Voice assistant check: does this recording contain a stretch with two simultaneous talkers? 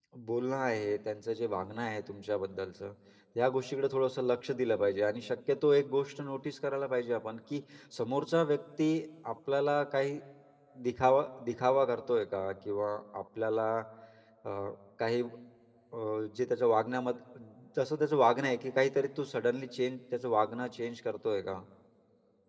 No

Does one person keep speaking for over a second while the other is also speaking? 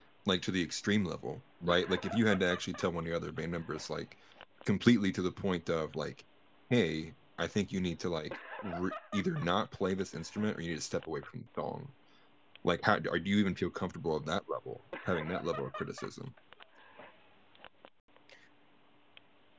No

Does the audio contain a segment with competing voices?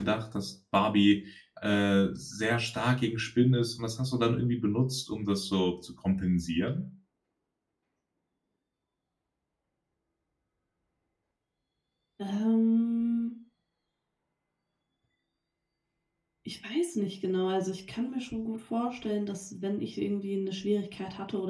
No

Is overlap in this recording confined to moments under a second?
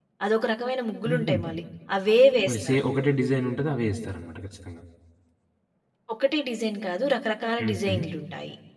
Yes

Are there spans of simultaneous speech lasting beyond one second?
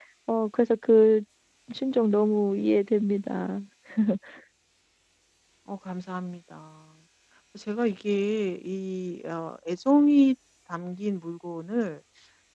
No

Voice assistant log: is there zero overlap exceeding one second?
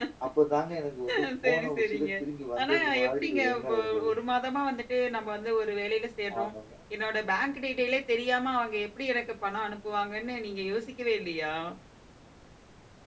No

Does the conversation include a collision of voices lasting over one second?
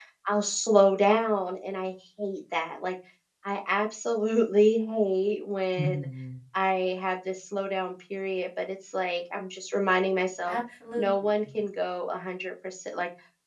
No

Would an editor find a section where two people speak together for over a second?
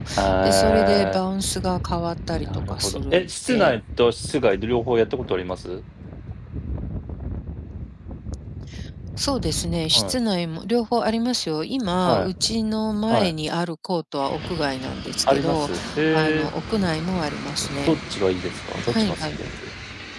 Yes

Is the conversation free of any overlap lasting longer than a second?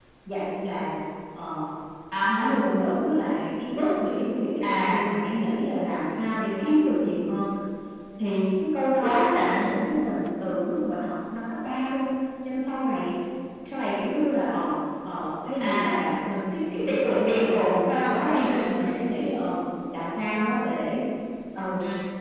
No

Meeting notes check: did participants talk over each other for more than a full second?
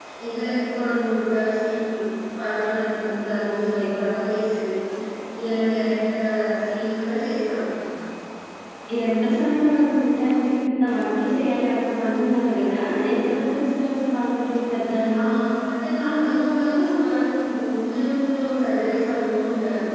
No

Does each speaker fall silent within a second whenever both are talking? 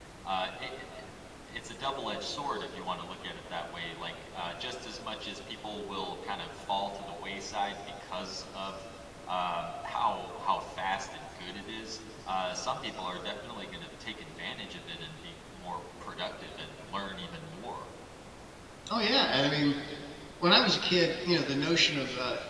Yes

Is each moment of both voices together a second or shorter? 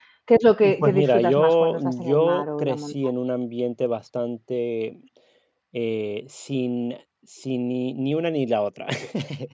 No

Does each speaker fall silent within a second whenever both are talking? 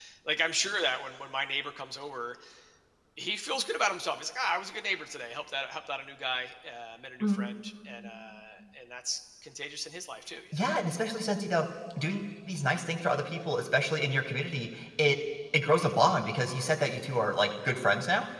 Yes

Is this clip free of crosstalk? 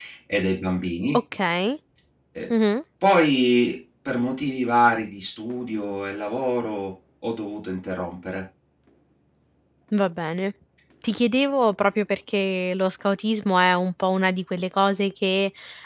Yes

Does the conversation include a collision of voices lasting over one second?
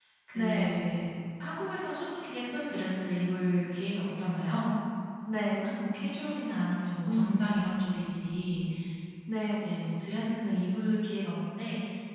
No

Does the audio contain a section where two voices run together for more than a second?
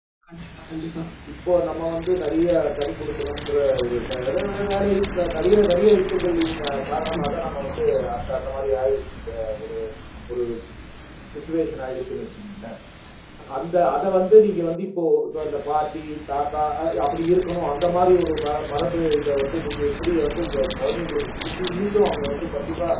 No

